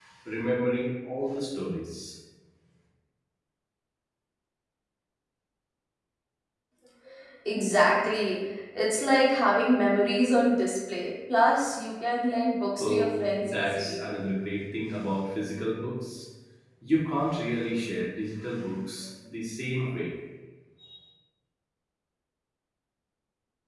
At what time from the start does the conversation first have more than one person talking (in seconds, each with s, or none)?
12.8 s